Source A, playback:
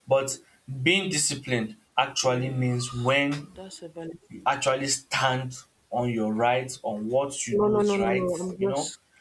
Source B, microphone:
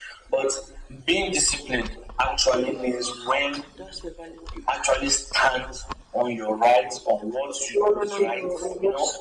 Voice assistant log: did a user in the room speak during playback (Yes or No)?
No